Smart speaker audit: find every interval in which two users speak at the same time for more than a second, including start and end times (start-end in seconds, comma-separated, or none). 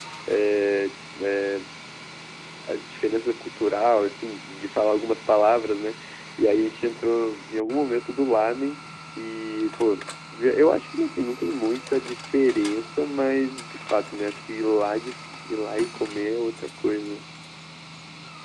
none